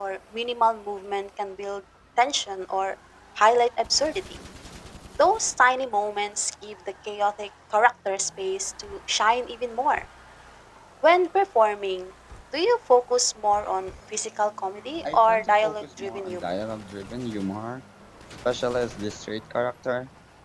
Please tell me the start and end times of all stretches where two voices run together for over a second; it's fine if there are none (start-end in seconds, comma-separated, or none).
15.0-16.4